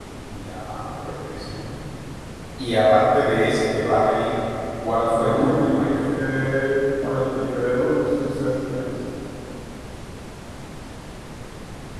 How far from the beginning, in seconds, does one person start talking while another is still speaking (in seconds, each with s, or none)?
5.1 s